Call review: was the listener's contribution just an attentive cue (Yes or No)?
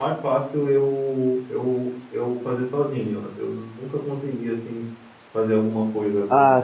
No